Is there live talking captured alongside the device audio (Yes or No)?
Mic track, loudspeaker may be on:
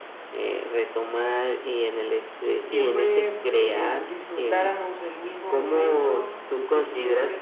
Yes